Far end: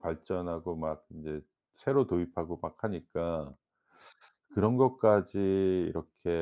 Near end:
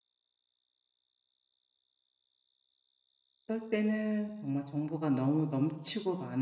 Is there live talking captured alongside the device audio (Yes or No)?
Yes